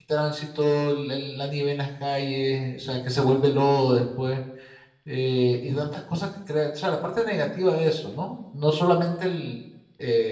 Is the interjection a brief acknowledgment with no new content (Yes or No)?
Yes